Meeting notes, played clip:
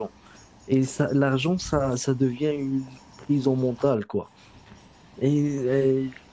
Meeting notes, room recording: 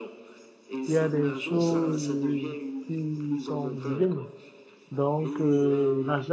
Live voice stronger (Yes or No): Yes